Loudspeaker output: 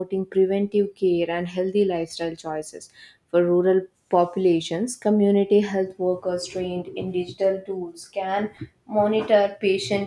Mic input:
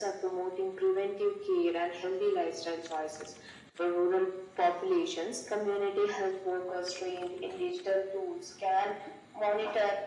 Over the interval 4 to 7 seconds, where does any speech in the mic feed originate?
echo only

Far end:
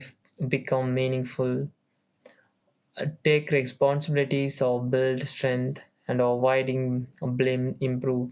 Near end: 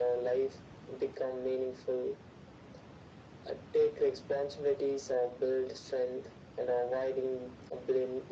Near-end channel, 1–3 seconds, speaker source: echo only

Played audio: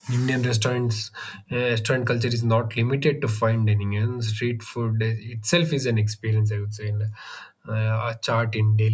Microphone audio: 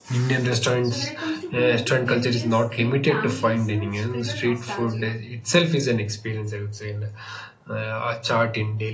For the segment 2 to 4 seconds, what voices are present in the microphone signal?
both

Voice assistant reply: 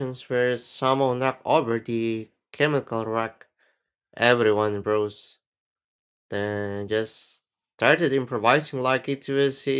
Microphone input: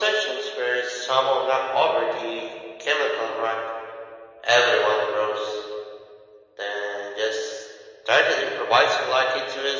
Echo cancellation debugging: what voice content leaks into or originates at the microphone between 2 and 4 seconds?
echo only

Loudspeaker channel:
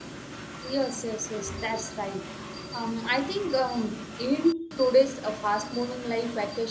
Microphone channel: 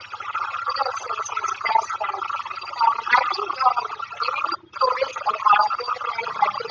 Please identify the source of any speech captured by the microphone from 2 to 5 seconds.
echo only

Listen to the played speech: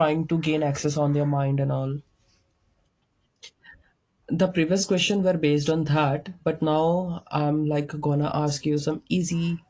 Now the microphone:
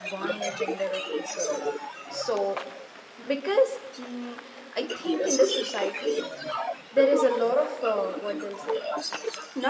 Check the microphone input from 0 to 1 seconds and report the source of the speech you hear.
both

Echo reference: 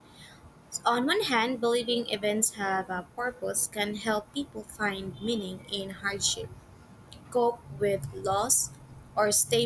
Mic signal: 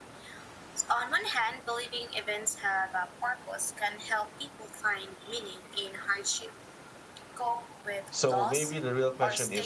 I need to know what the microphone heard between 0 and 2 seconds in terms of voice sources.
echo only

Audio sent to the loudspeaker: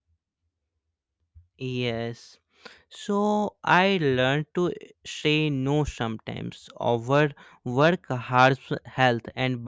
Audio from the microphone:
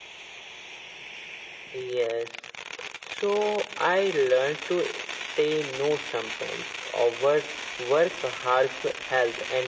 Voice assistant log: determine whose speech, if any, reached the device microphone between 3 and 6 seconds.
echo only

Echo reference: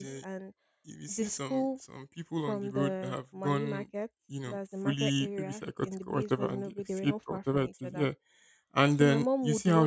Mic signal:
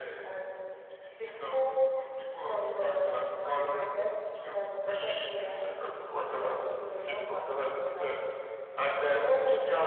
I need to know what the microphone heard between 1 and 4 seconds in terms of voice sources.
both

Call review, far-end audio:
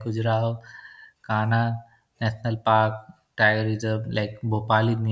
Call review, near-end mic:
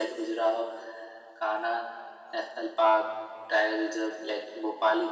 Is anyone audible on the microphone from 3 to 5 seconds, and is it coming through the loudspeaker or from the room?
echo only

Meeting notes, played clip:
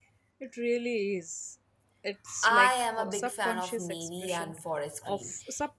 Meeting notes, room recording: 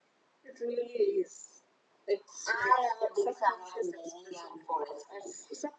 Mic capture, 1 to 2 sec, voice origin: echo only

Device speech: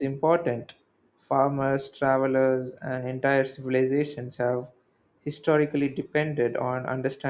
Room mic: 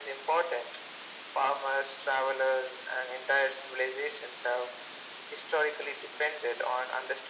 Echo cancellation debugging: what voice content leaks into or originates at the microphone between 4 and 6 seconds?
echo only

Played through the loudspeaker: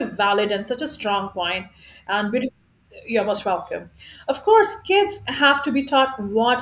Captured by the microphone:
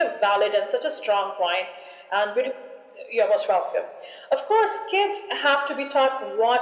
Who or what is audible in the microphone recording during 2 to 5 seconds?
echo only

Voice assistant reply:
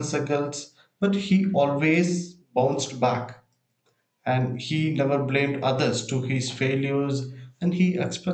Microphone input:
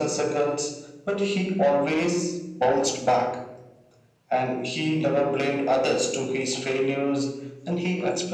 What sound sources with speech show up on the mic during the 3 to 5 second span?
echo only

